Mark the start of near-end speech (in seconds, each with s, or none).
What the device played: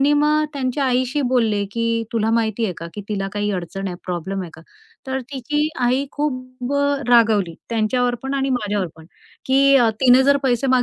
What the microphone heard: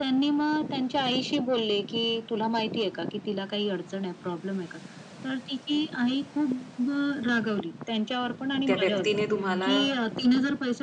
8.7 s